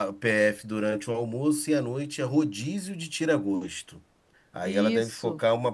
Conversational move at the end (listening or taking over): listening